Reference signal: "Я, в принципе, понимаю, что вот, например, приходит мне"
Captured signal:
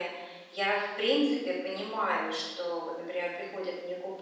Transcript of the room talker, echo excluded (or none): none